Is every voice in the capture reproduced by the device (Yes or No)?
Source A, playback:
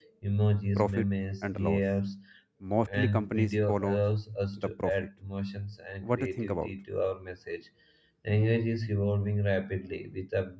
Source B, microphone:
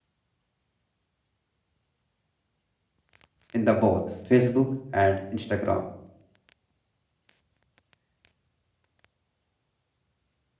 No